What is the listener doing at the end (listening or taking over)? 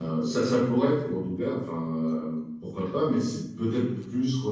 listening